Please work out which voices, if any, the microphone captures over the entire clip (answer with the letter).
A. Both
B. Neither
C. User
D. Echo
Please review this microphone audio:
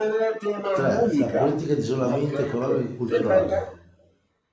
A